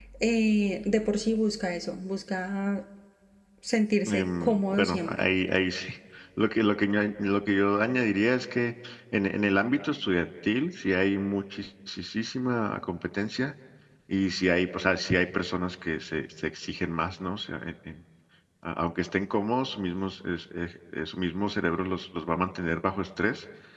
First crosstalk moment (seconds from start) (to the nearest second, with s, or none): 4 s